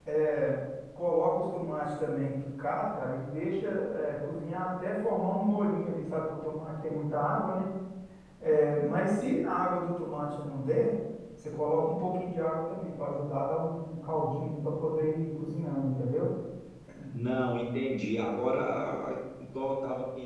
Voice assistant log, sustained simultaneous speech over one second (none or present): none